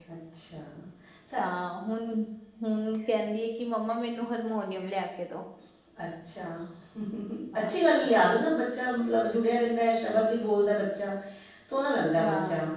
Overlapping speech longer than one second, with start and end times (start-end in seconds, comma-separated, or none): none